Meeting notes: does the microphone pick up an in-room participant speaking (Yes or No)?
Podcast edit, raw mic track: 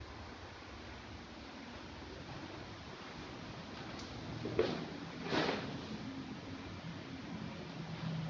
No